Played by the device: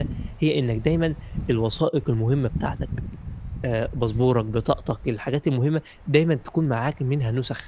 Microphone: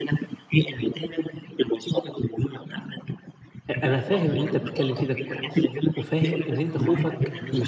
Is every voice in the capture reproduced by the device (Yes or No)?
No